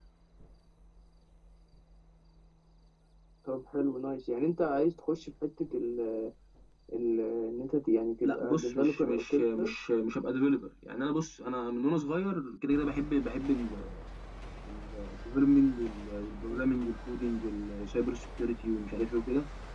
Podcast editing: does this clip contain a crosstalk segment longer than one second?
Yes, from 8.2 s

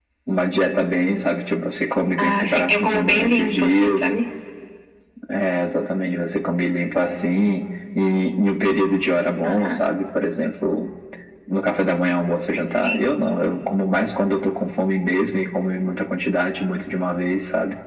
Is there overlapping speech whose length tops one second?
Yes, from 2.2 s

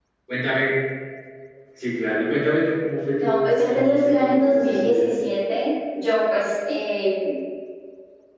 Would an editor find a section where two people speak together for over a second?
Yes, from 3.2 s

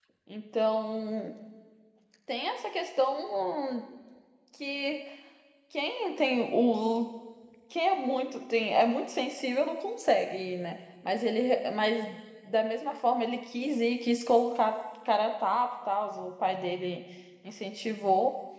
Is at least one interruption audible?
No

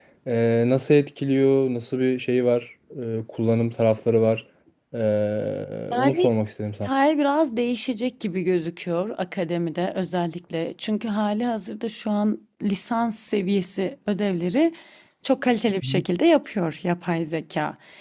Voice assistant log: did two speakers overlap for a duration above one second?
No

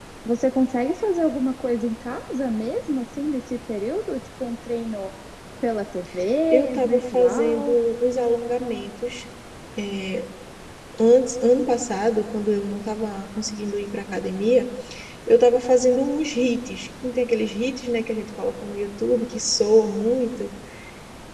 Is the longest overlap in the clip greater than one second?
Yes, from 6.5 s

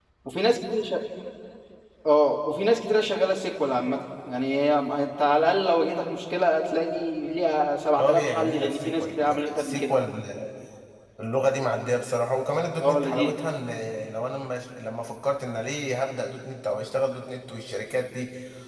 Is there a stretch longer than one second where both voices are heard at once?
Yes, from 8.0 s

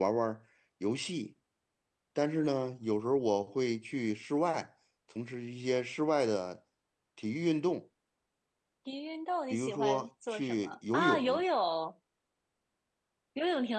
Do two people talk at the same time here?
Yes, from 9.5 s

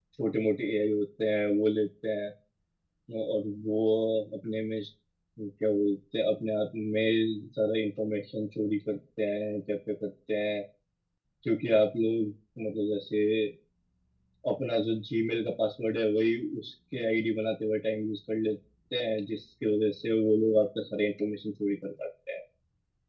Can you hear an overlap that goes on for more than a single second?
No

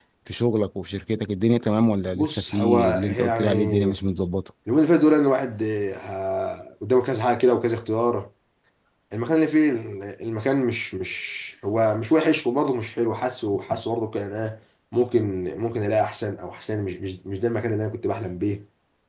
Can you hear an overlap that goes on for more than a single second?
Yes, from 2.1 s

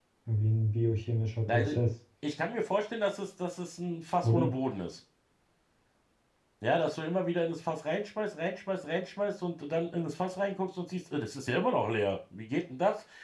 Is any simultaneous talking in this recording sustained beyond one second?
No

